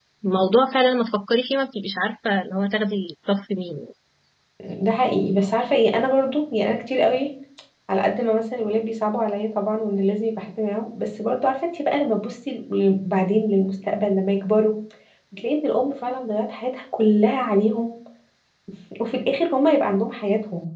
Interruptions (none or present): none